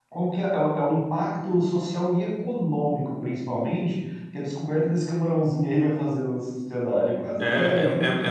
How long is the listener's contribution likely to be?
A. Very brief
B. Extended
B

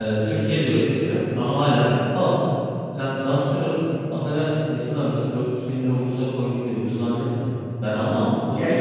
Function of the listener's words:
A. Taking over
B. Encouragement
A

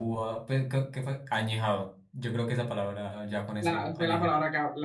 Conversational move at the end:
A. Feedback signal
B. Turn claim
B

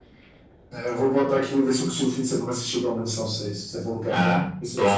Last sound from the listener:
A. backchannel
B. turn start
B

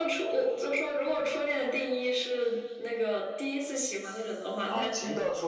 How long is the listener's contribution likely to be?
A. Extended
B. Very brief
A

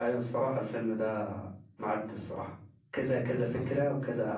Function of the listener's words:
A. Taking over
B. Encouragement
B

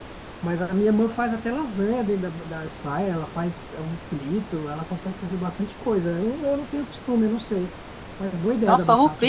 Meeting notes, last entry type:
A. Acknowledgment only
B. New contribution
B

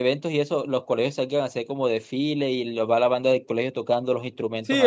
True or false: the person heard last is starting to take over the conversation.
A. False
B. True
B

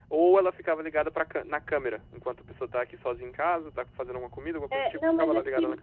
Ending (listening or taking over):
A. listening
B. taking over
B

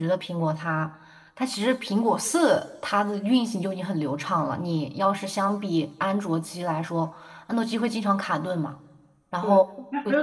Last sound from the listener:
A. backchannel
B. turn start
B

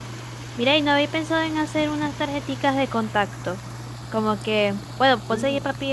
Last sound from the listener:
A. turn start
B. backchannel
B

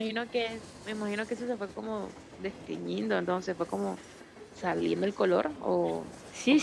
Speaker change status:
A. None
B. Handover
B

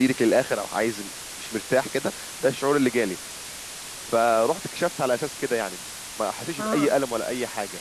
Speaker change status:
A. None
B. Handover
A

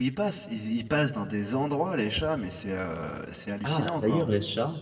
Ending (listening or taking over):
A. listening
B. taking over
B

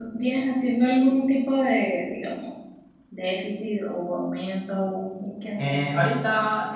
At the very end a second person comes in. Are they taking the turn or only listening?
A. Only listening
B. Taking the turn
B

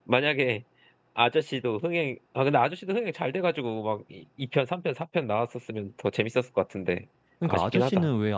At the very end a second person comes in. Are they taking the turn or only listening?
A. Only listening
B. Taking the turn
B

